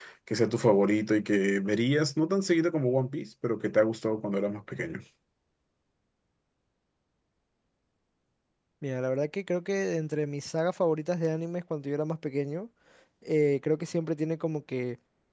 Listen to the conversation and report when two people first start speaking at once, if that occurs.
none

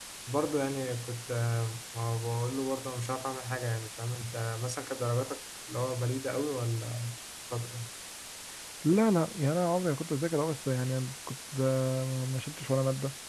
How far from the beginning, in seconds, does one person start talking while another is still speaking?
none

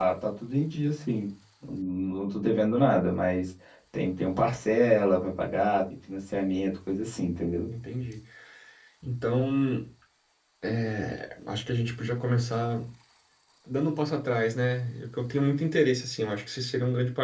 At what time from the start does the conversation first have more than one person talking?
none

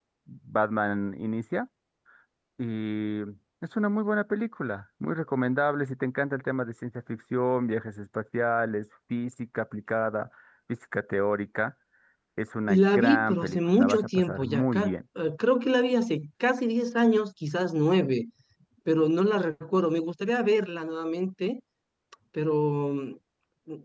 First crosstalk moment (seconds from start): 12.7 s

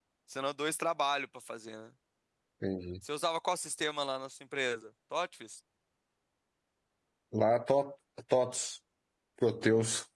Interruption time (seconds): none

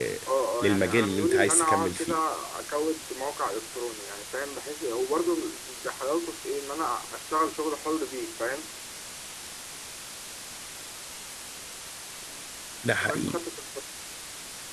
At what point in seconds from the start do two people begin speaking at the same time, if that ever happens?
0.6 s

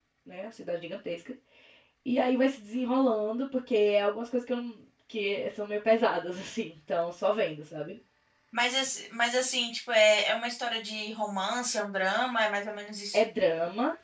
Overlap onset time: none

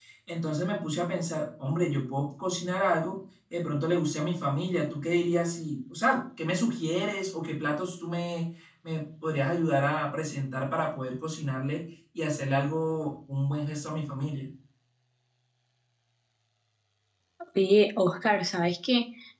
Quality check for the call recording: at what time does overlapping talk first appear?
none

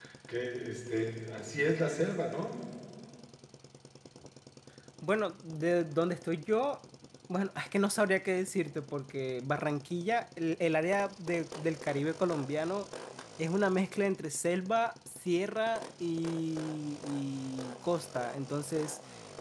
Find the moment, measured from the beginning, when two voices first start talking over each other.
none

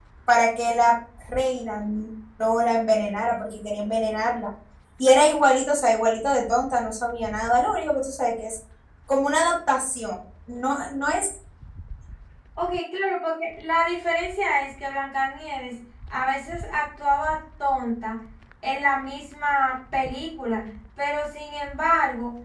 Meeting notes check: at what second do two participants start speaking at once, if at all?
none

